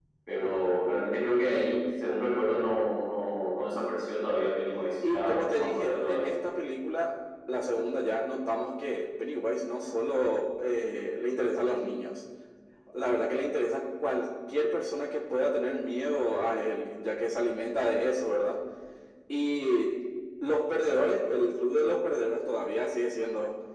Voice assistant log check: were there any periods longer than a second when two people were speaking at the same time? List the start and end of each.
5.1-6.3

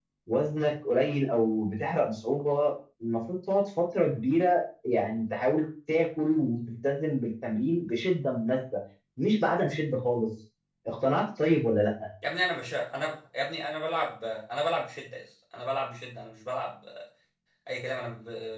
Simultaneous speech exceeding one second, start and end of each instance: none

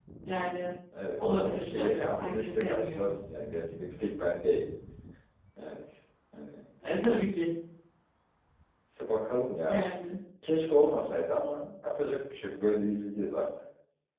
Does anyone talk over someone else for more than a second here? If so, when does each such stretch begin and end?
1.2-3.1

